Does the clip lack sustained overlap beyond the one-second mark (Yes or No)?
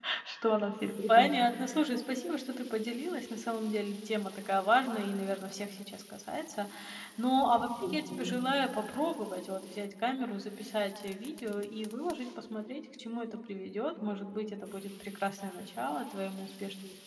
Yes